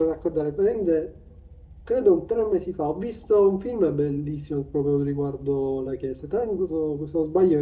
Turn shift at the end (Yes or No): No